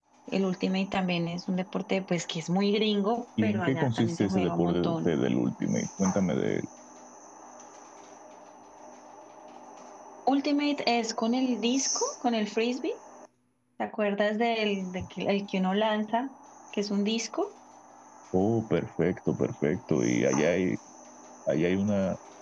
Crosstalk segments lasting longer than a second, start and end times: 3.4-5.1

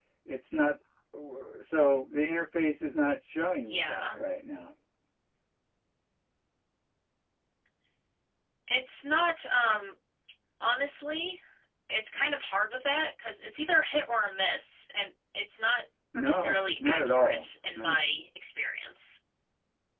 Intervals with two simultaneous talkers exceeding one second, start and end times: 16.1-18.1

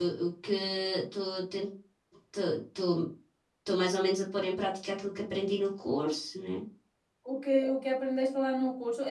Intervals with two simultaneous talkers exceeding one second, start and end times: none

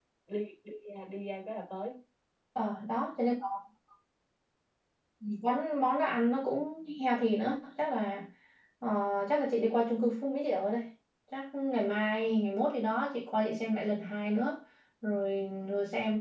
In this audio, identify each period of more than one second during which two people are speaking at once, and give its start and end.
none

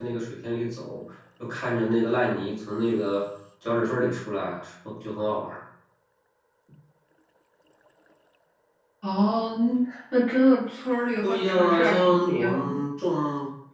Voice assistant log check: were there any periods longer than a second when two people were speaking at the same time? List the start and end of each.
11.2-12.8

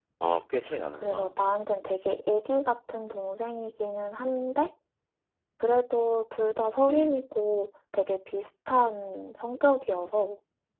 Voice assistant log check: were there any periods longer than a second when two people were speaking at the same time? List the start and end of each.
none

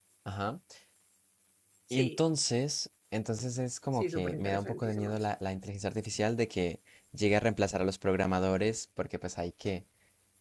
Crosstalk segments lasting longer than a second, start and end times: 3.9-5.2

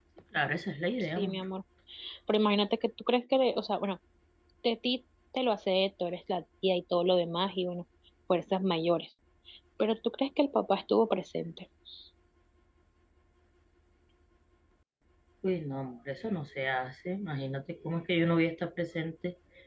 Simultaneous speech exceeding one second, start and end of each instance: none

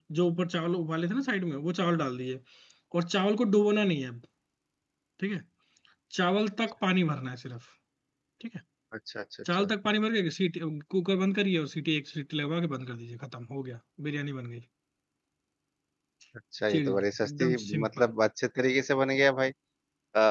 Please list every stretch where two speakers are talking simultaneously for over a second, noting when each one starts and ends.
16.7-18.1

